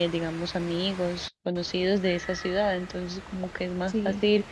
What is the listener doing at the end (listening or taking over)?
listening